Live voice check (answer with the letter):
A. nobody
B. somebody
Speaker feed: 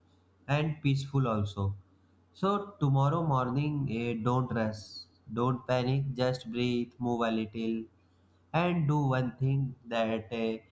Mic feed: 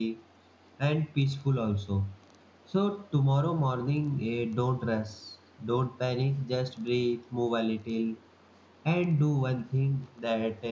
A